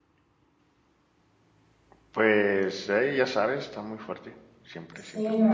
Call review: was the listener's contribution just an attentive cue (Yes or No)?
No